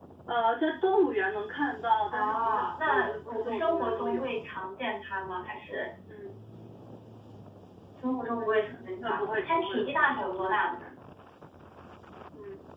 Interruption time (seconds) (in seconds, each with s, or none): 2.1 s